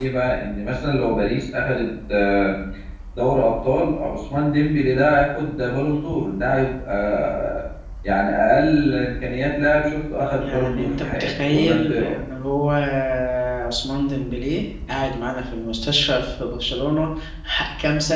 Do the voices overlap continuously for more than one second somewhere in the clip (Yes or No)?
Yes